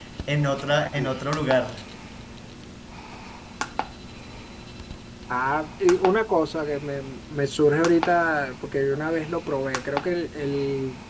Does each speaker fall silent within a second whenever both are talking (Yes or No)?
Yes